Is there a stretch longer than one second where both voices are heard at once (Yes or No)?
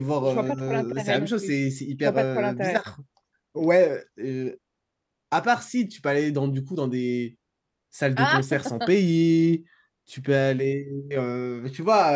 Yes